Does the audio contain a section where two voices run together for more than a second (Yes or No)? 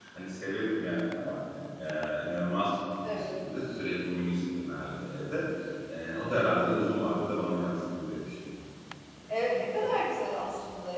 No